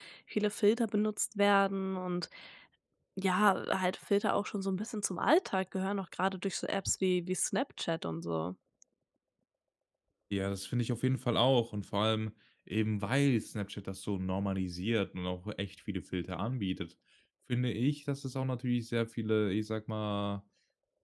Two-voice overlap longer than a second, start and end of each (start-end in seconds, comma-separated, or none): none